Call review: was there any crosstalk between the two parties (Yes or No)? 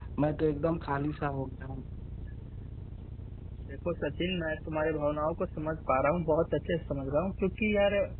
No